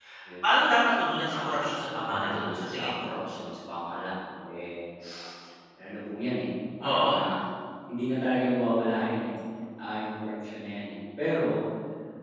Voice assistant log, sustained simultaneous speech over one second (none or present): present